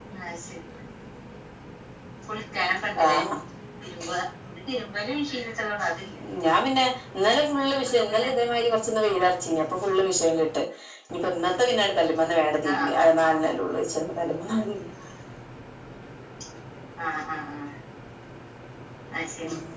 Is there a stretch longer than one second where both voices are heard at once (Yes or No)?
No